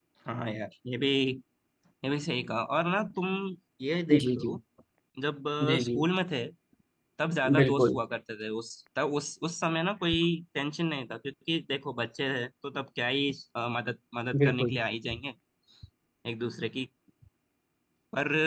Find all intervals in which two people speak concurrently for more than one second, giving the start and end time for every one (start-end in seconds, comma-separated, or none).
none